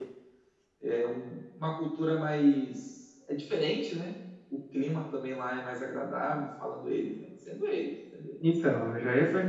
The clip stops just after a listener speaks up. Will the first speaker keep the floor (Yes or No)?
No